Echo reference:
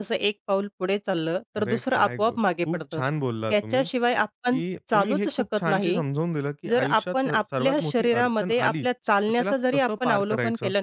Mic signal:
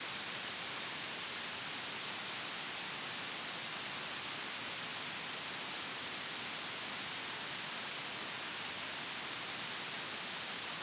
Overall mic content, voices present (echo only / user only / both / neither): neither